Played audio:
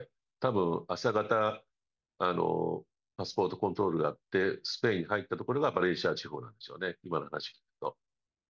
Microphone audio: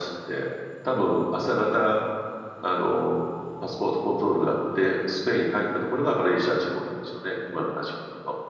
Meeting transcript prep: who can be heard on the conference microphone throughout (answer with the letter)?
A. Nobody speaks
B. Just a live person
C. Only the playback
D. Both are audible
C